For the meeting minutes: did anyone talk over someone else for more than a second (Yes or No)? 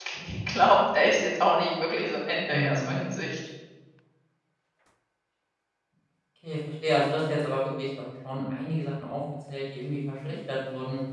No